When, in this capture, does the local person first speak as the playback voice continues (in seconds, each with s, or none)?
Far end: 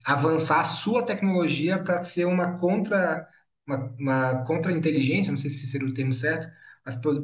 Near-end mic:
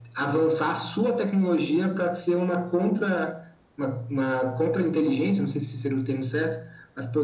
none